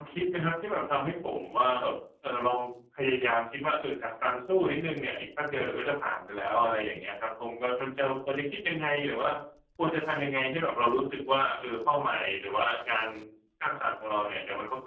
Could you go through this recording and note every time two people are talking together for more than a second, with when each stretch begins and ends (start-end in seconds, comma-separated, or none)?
none